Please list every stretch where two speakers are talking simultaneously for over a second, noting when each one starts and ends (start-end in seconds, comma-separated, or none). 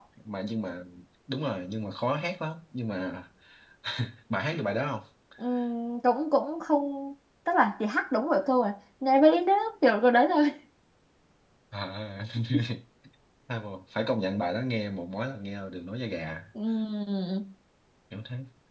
none